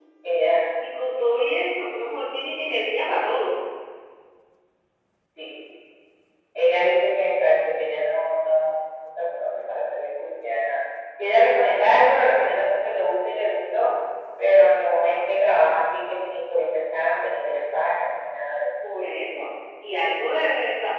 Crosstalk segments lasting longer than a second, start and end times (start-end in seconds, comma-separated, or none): none